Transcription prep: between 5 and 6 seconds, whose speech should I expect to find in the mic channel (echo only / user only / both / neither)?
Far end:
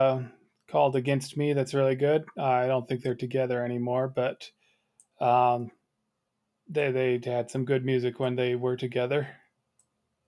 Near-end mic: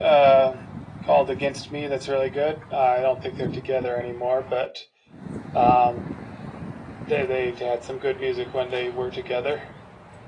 echo only